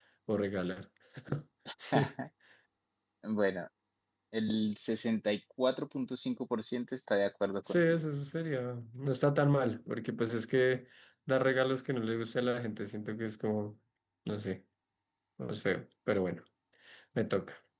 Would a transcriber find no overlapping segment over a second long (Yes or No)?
Yes